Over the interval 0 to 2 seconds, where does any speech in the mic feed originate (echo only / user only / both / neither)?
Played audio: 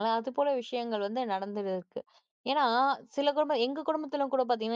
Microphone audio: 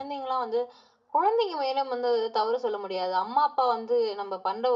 user only